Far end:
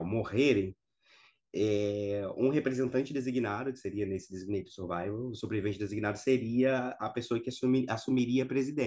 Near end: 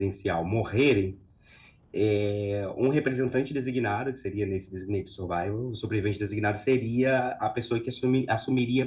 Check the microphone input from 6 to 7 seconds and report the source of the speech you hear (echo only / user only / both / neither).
echo only